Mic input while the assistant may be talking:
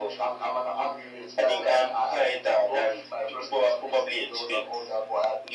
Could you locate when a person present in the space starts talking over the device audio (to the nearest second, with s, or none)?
none